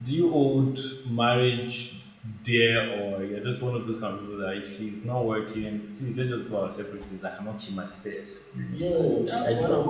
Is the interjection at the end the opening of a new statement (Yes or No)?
Yes